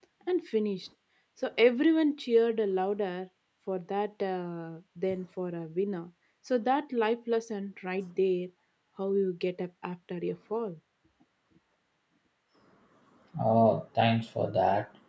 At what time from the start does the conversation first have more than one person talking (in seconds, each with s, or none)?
none